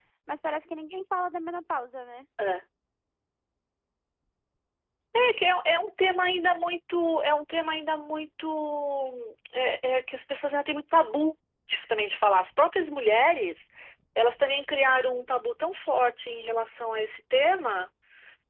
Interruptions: none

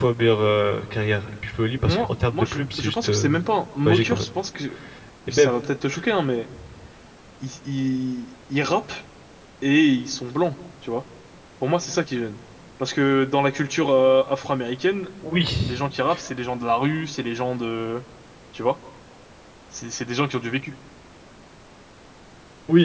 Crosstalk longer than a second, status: present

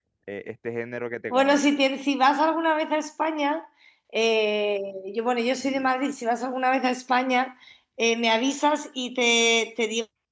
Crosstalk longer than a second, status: none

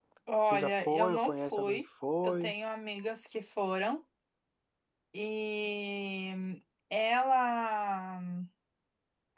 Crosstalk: present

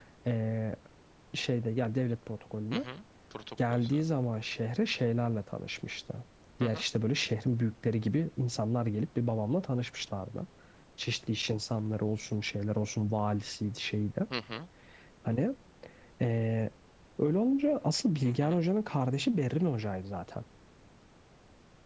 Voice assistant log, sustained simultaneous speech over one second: none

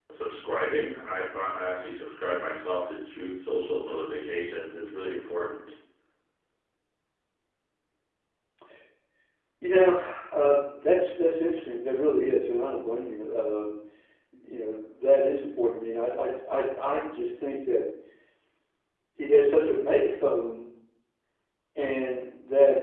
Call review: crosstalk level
none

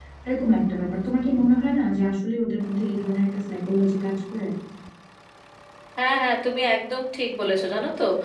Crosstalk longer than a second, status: none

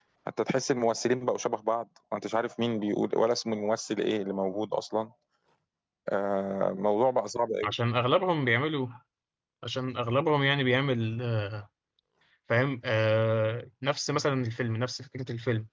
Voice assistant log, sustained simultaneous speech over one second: none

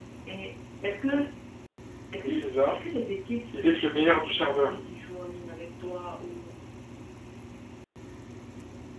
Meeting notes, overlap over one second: present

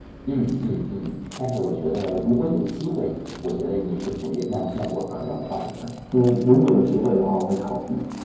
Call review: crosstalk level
none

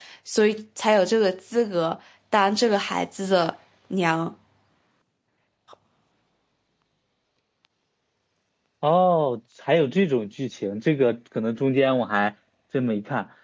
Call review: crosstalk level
none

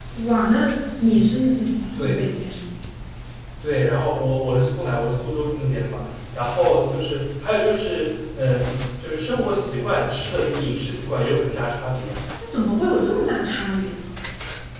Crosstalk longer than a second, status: none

